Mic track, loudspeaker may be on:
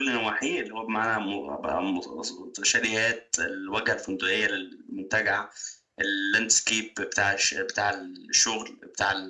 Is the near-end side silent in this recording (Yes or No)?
Yes